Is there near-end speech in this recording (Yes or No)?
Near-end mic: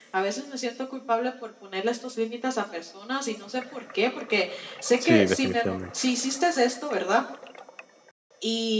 Yes